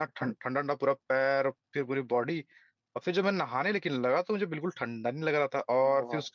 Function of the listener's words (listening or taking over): listening